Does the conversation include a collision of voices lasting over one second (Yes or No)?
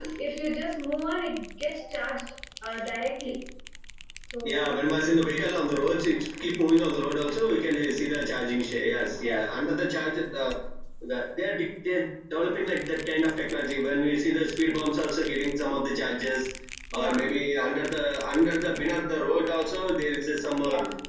No